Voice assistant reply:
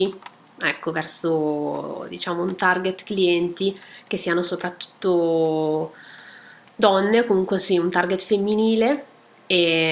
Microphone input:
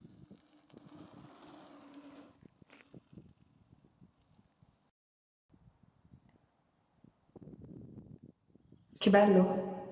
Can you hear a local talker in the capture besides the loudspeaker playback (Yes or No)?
Yes